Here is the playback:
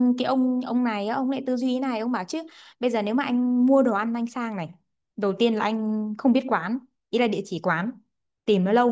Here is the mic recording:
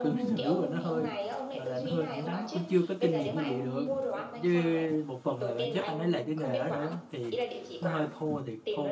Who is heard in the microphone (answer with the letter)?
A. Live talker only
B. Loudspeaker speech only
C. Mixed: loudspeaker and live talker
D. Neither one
C